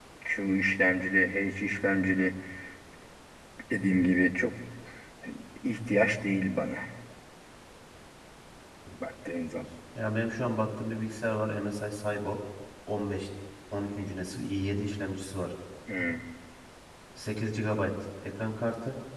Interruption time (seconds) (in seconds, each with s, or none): none